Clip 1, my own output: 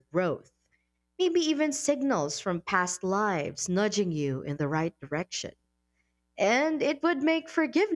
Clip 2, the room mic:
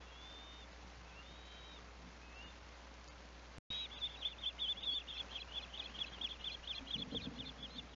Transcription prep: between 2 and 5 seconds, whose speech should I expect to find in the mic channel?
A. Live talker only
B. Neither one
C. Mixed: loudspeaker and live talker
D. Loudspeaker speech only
B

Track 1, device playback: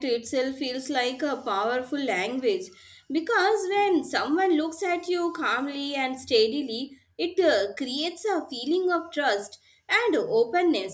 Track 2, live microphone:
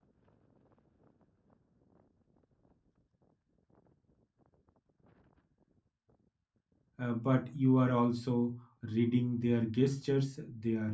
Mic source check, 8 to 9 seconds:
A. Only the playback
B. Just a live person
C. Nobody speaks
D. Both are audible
B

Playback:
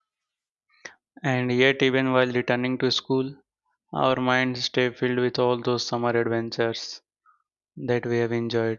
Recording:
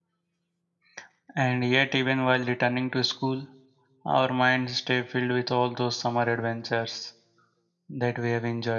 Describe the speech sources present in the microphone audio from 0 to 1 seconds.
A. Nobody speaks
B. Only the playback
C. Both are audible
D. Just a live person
A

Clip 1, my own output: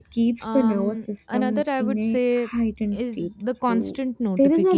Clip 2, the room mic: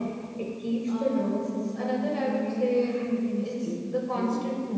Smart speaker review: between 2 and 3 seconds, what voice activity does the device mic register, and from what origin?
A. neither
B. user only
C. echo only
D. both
C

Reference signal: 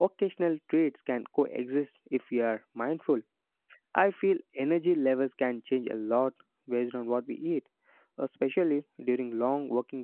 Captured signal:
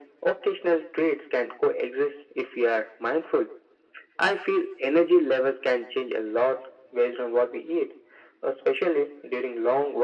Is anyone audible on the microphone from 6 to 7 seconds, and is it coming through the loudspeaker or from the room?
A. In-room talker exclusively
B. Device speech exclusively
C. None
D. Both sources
B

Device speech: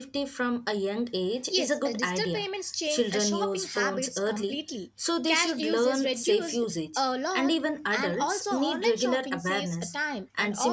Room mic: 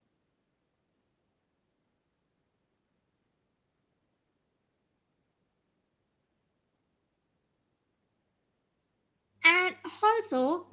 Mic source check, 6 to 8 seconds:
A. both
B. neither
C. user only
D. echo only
B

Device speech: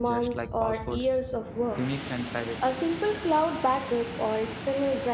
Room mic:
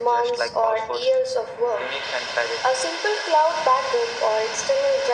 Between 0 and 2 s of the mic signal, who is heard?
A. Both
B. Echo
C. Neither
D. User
B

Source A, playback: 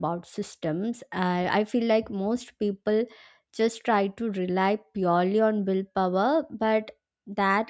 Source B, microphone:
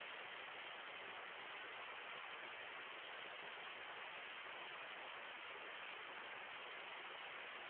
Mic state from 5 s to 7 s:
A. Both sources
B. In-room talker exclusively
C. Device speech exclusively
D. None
D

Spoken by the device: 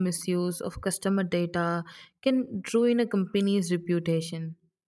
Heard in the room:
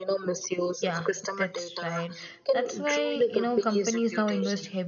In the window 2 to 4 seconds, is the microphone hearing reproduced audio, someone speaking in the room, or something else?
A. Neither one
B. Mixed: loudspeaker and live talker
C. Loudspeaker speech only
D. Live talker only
B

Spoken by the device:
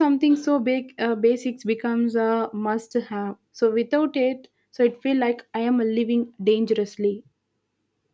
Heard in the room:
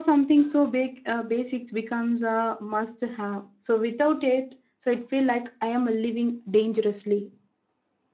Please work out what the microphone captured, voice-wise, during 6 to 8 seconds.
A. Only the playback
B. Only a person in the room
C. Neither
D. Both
A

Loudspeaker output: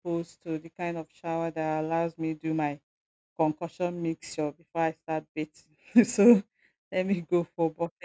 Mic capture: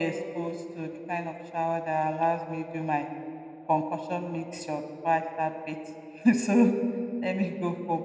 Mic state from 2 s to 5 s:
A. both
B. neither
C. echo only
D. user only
C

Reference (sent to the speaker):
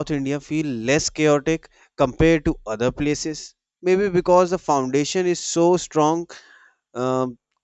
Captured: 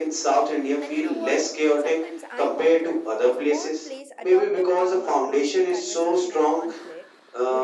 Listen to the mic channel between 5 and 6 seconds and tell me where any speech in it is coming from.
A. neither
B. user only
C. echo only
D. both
D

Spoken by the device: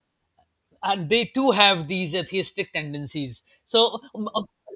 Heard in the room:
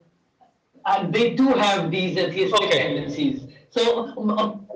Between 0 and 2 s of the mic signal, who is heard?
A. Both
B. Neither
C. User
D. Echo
D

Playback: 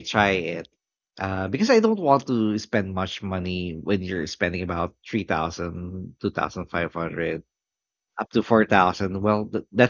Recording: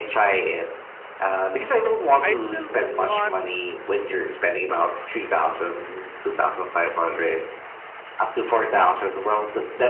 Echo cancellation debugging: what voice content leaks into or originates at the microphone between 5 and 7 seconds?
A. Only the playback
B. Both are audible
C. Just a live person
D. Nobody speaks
A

